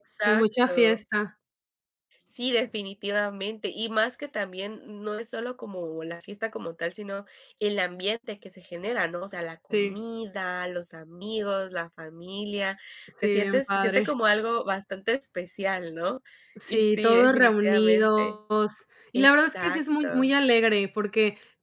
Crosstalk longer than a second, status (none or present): present